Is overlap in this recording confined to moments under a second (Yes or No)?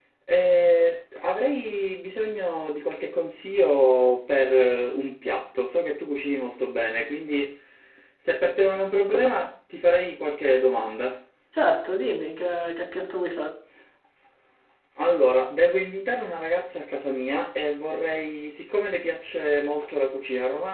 Yes